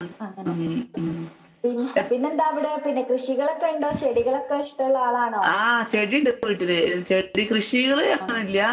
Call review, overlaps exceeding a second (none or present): none